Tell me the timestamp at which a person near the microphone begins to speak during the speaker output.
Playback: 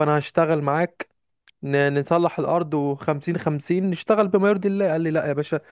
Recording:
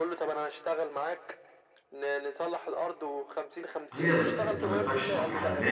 3.9 s

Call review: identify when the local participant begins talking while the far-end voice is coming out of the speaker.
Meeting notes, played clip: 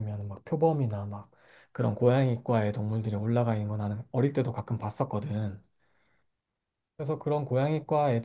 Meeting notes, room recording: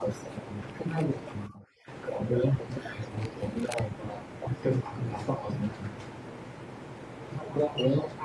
none

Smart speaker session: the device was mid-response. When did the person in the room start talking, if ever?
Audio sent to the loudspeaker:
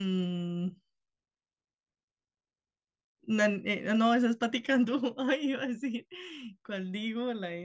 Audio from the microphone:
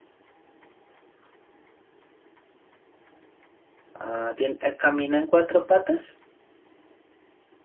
3.9 s

